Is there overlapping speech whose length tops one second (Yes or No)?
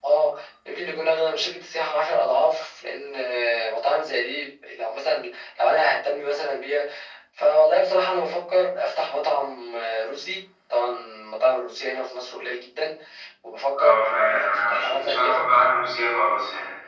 Yes